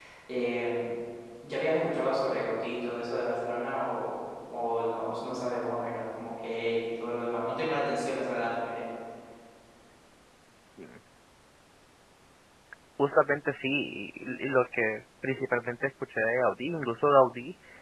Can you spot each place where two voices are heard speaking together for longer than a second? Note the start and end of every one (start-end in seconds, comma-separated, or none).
none